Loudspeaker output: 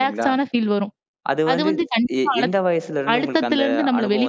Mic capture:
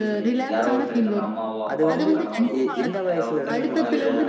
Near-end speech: present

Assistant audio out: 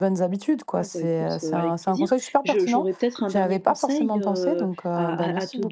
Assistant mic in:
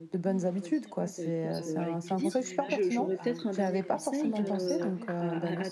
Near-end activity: present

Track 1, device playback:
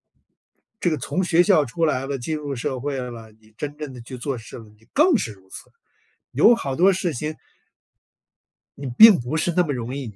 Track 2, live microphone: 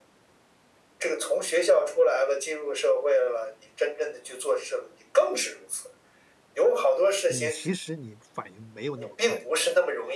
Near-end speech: present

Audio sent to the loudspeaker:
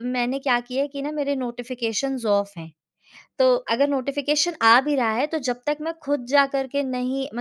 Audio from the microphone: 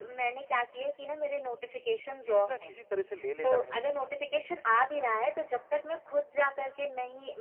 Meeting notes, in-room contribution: present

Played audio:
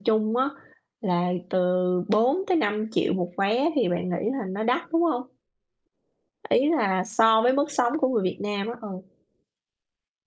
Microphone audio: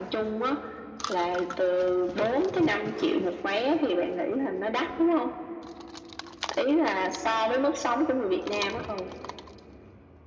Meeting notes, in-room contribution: none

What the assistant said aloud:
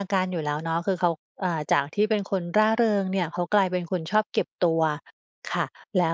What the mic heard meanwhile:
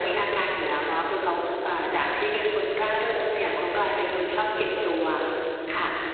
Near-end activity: none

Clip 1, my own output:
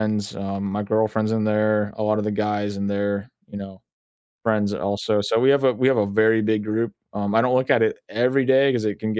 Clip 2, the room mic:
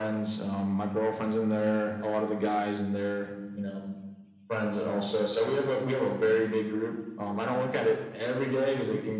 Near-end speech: none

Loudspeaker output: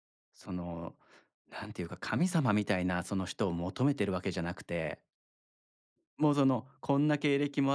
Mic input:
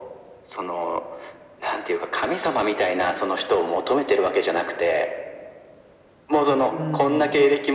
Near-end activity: present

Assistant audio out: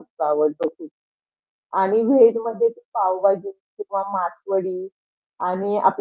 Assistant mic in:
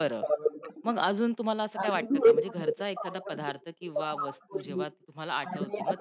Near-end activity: present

